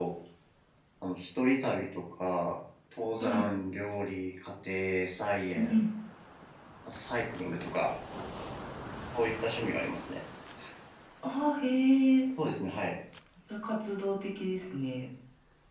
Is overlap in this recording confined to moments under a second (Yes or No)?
Yes